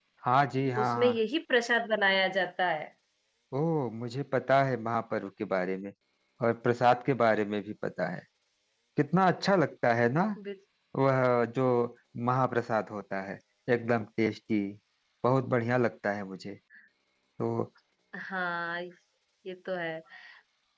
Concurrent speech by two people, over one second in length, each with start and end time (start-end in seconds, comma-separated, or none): none